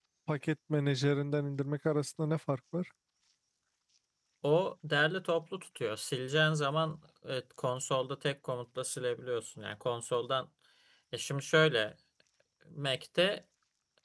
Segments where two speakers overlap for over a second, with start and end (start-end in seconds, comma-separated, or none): none